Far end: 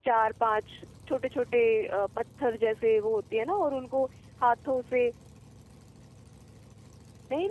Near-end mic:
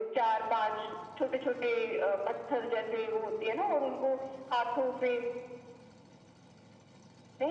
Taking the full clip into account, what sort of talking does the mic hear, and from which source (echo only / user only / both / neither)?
echo only